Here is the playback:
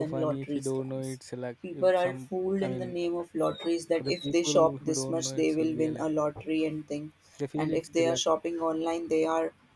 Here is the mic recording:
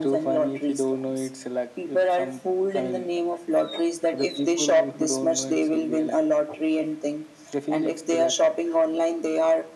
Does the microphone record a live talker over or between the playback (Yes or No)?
No